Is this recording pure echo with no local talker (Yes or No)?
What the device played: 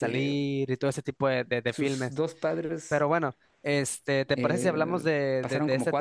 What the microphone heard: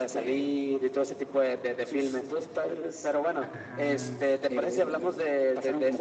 No